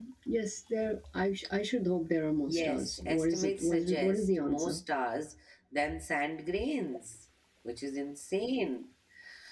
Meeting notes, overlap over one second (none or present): present